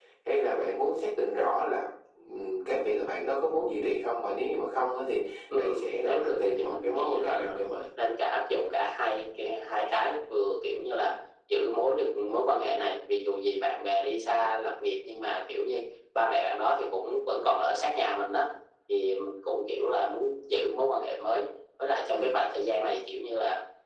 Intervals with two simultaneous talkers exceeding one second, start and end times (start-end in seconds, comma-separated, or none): 5.6-7.6